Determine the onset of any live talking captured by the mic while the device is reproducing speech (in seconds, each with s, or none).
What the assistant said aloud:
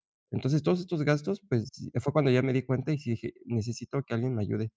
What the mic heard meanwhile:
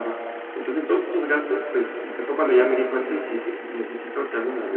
none